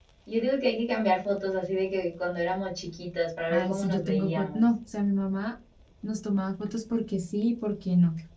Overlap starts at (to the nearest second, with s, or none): 4 s